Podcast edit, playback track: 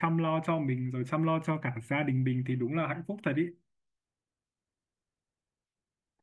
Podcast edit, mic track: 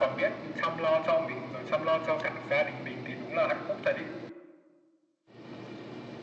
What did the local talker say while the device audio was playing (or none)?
none